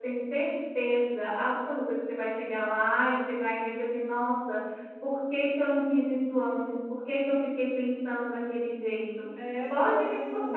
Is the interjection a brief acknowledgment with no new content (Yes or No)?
No